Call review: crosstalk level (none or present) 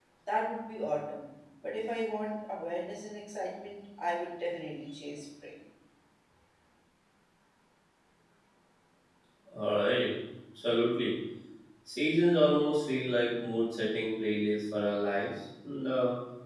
none